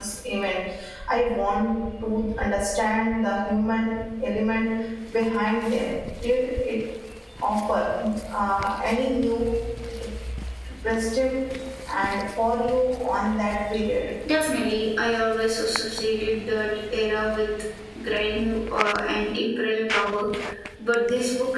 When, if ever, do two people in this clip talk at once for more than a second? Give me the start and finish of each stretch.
none

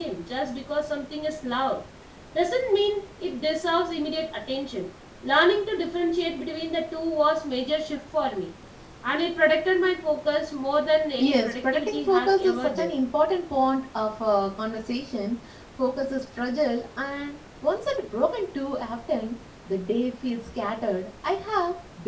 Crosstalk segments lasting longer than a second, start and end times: 11.2-12.9

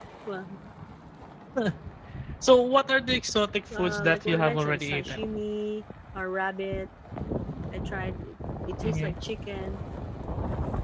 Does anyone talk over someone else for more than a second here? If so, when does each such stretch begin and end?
3.8-5.2

